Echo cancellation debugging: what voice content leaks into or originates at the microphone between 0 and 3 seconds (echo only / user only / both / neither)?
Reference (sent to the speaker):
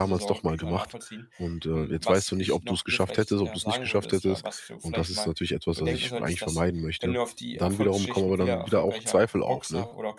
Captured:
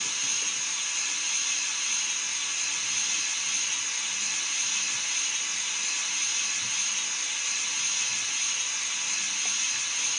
neither